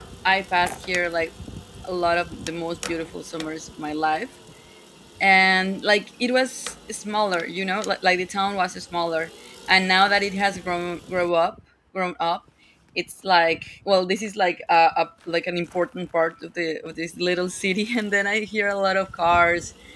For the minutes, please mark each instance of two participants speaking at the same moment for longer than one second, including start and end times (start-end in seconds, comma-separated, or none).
none